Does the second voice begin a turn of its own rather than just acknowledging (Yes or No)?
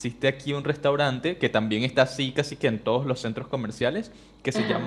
No